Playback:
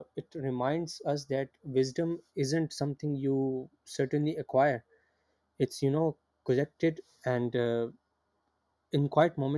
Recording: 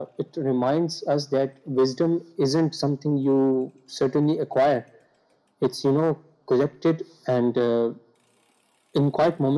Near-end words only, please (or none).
none